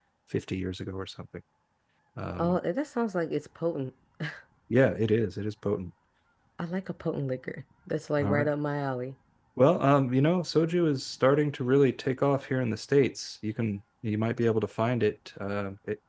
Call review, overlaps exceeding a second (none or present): none